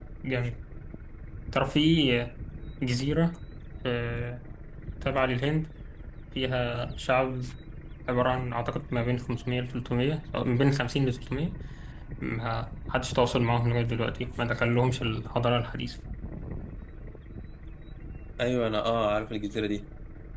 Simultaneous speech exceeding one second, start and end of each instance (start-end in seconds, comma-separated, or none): none